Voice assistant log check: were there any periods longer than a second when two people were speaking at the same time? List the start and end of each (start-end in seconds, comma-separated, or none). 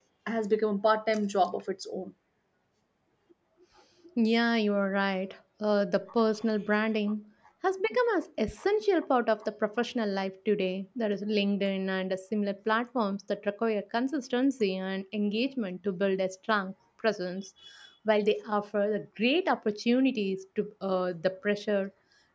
none